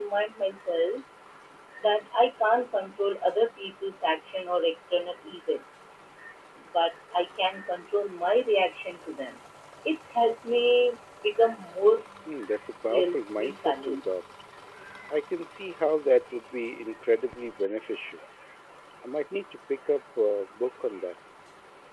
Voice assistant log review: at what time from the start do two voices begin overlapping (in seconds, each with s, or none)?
12.9 s